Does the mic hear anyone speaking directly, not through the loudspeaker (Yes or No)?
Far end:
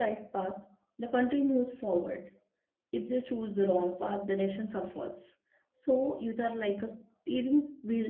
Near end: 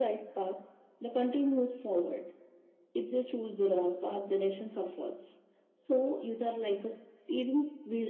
No